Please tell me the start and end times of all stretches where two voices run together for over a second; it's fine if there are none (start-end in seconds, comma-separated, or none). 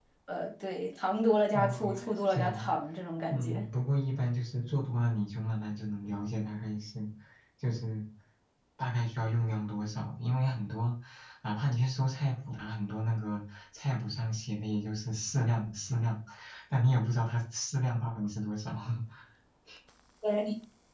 1.5-2.8